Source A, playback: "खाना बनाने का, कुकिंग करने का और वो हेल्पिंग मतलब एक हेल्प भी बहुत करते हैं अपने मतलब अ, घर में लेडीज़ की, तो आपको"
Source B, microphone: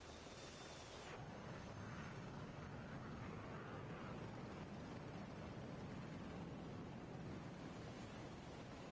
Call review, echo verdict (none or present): none